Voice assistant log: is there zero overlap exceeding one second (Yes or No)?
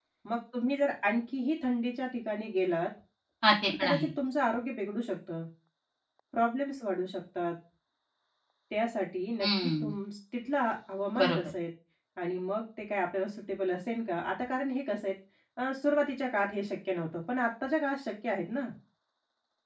Yes